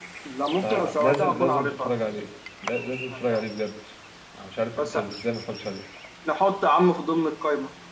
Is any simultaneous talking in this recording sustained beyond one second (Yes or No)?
Yes